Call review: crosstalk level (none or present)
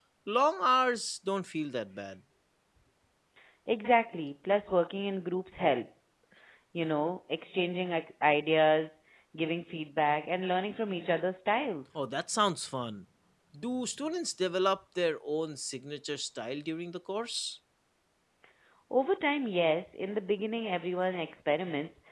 none